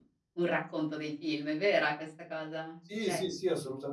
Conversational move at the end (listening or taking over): taking over